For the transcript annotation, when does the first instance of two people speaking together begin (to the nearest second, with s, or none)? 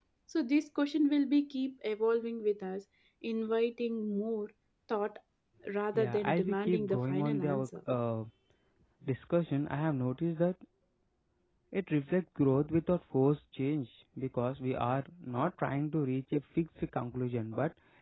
6 s